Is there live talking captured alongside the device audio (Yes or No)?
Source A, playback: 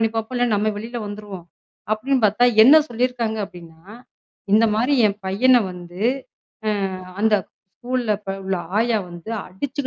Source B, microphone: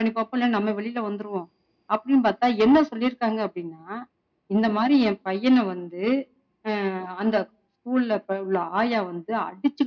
No